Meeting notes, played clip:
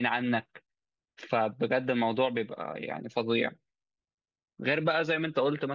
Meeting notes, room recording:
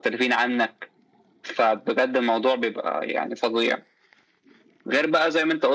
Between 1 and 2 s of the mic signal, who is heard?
echo only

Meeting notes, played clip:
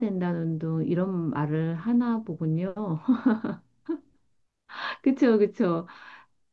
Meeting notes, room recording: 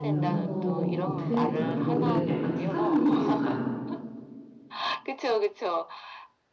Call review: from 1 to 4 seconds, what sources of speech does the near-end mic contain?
both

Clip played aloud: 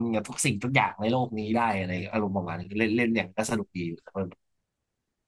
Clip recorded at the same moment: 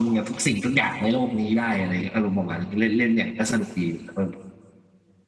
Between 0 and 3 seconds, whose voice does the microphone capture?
echo only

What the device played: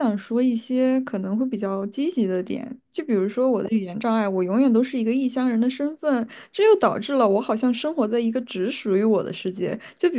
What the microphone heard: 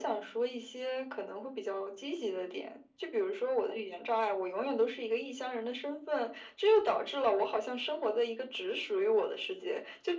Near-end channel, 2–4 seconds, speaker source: echo only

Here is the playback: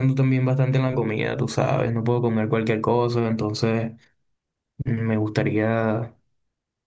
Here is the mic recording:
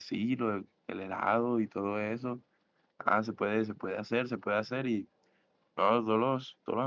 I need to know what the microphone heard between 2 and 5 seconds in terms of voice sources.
user only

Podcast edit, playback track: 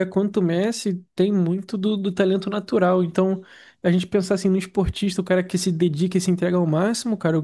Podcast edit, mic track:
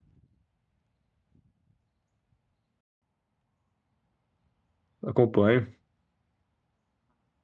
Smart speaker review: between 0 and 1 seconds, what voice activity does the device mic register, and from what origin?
neither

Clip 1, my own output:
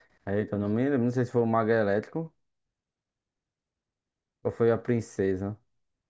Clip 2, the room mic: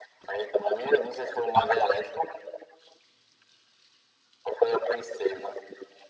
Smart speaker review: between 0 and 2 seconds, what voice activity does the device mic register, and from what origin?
echo only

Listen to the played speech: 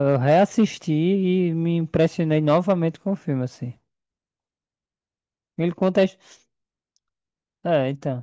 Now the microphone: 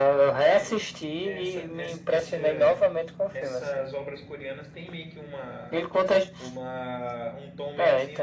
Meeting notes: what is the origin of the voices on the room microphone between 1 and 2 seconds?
both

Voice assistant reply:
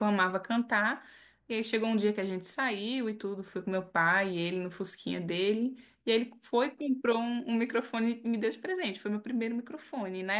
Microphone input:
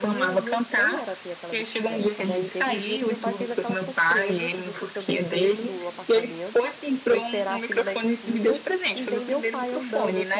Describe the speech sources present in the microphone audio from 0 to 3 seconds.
both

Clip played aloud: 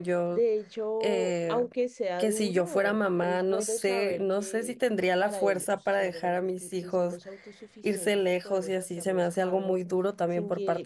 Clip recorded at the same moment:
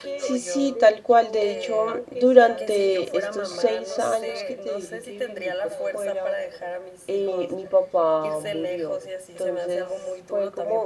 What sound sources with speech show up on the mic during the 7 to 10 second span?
both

